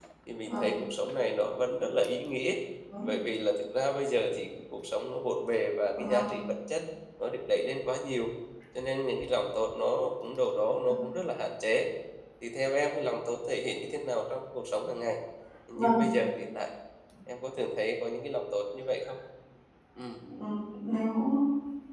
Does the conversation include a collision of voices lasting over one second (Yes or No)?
No